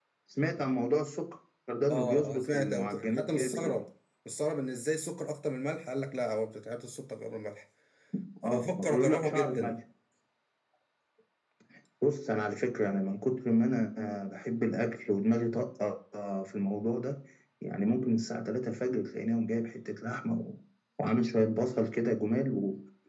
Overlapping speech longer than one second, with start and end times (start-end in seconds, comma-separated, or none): 1.9-3.8, 8.4-9.8